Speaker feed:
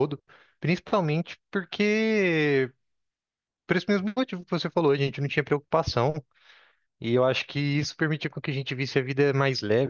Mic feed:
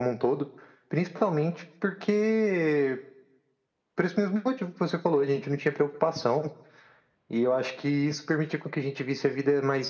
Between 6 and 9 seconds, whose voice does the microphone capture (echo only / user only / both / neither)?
echo only